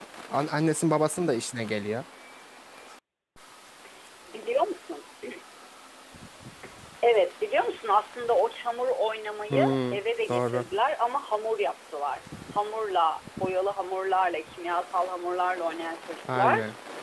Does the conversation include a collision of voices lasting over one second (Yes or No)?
No